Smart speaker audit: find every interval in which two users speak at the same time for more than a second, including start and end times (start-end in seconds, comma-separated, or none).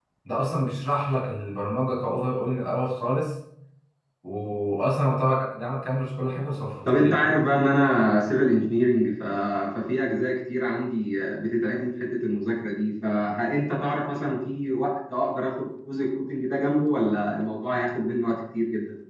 none